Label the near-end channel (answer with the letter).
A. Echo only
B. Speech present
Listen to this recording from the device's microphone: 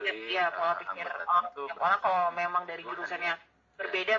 A